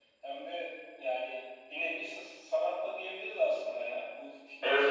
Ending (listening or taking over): taking over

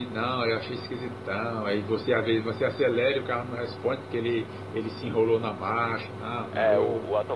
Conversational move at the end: taking over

